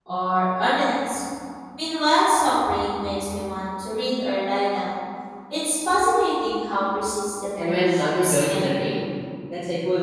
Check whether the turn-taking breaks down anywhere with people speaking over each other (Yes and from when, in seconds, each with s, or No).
Yes, from 7.6 s